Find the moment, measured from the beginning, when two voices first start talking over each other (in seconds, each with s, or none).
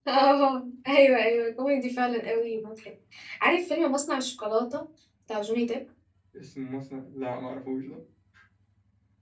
none